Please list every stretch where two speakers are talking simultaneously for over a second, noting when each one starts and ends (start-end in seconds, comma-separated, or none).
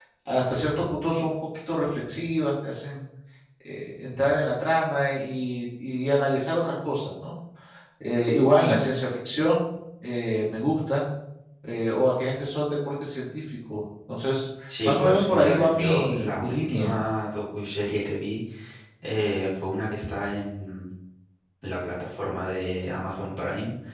14.8-16.9